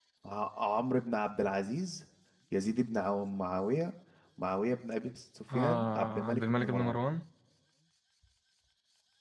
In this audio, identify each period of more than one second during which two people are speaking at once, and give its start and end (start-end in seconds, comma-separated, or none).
5.5-7.0